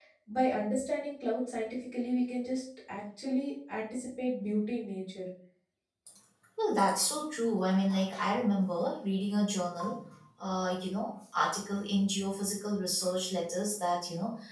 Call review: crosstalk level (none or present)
none